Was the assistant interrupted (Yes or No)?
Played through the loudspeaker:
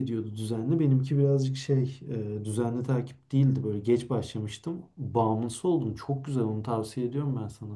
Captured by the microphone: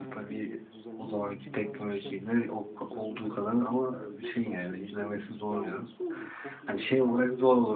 Yes